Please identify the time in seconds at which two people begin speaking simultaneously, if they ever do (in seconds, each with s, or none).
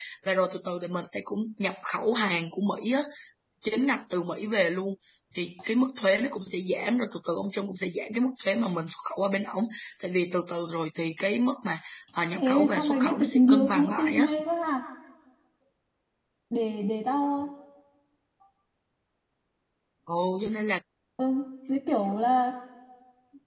12.3 s